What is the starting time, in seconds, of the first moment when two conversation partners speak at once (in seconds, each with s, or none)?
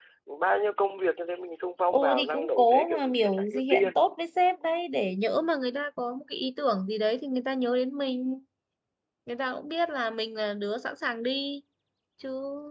1.9 s